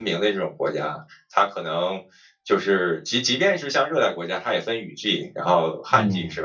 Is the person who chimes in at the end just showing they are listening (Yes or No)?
Yes